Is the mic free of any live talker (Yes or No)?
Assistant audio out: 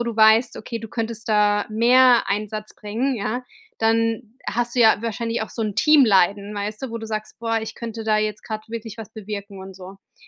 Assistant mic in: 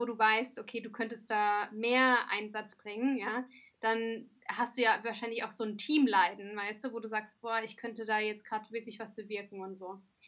Yes